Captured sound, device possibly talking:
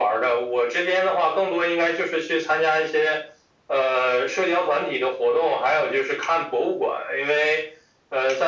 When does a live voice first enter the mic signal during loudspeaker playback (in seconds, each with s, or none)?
none